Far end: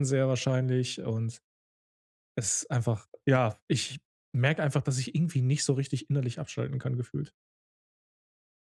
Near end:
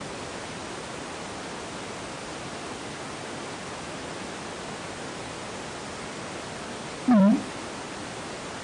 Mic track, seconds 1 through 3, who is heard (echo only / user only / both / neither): neither